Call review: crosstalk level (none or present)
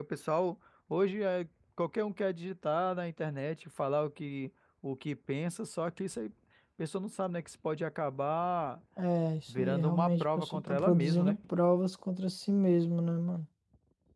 present